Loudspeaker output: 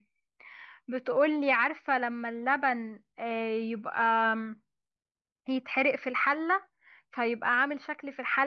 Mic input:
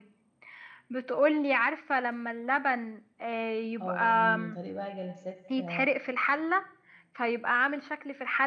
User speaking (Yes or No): Yes